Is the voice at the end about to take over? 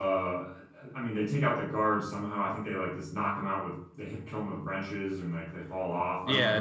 Yes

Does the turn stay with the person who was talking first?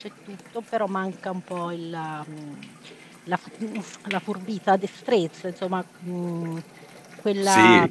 Yes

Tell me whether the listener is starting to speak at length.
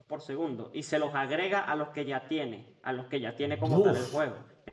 No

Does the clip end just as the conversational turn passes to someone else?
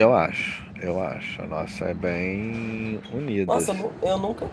Yes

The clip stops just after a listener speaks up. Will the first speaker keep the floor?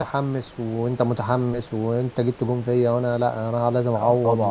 No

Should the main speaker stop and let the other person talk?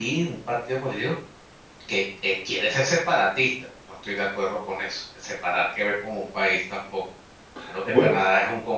No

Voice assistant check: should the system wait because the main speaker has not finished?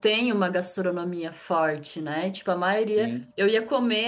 Yes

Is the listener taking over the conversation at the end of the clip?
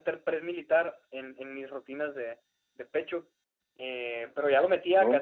No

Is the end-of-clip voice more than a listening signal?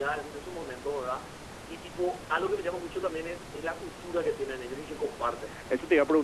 Yes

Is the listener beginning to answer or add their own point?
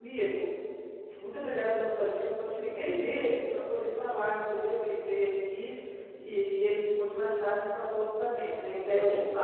Yes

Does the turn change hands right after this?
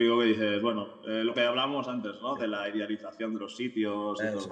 No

